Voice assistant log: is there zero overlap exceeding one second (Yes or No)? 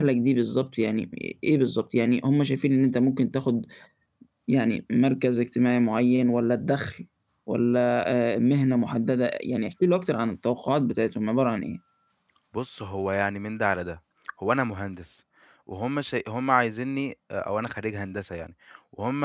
Yes